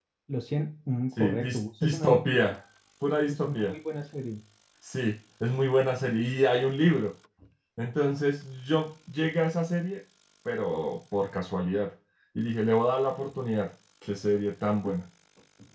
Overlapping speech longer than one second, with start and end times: 1.1-2.4

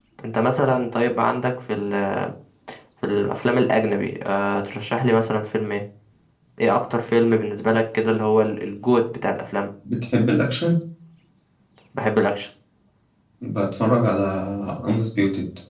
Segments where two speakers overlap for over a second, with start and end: none

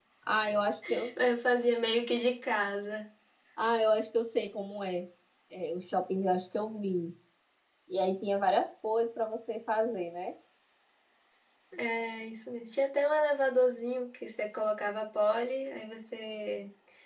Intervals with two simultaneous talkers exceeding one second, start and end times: none

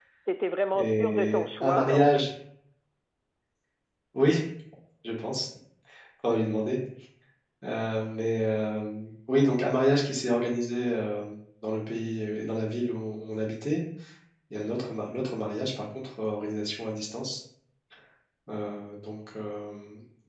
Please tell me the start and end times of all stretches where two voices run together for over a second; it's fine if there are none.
0.7-2.2

